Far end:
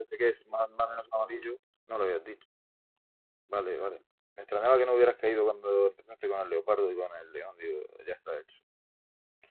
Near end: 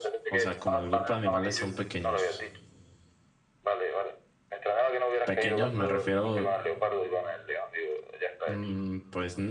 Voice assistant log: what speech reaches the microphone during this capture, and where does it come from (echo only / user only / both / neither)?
both